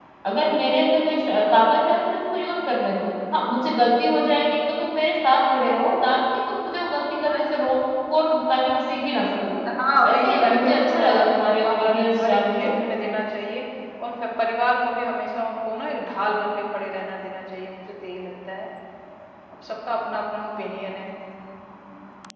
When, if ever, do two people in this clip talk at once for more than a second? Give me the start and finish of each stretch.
10.0-12.7

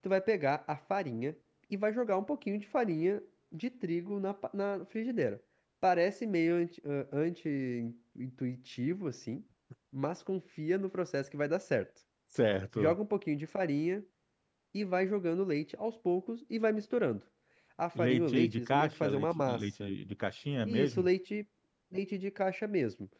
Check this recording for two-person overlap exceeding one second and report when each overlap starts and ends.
17.9-19.9

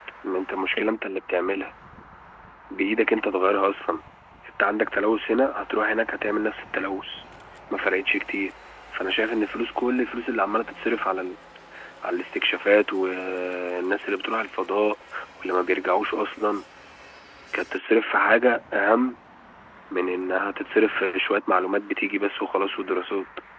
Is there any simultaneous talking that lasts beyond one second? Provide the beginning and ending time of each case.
none

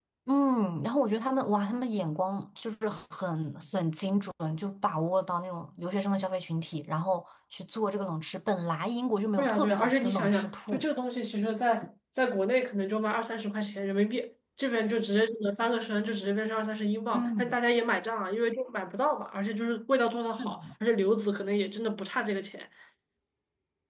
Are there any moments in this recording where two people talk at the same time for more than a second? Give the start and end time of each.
9.4-10.8

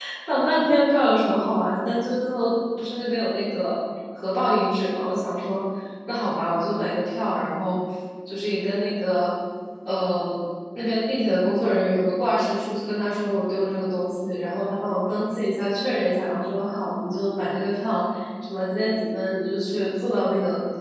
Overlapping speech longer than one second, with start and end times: none

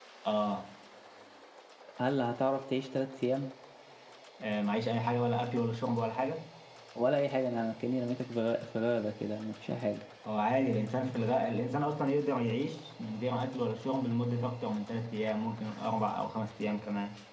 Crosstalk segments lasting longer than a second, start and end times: none

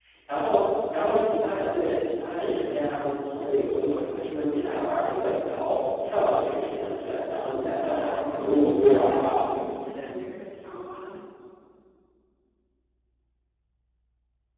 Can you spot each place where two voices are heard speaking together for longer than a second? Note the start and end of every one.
7.9-9.5

